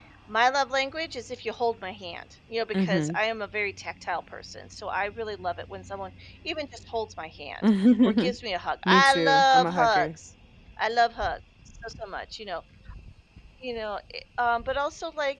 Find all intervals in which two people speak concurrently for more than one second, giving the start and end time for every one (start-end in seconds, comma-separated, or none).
8.8-10.1